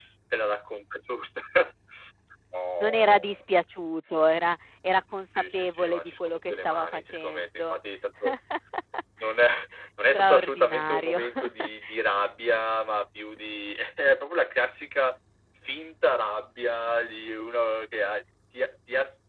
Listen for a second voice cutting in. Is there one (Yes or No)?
Yes